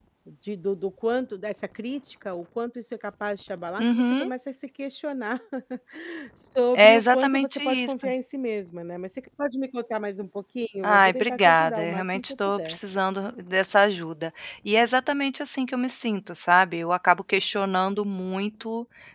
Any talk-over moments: Yes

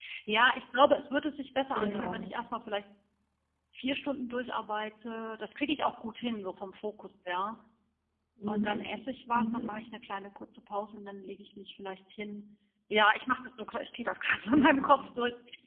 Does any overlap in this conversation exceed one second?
No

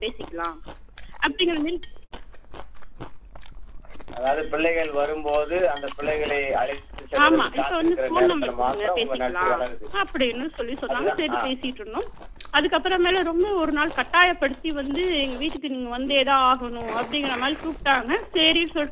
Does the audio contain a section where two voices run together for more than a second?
Yes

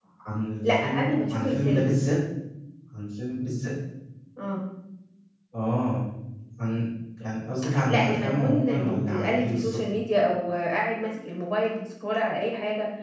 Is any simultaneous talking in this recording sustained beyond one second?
Yes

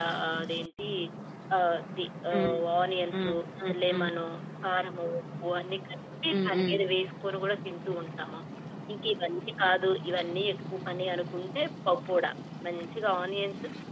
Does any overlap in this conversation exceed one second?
No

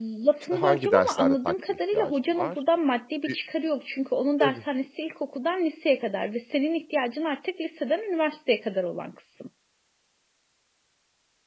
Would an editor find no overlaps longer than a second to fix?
No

